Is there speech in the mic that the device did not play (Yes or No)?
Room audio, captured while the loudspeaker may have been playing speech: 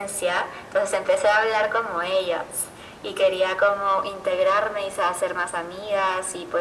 No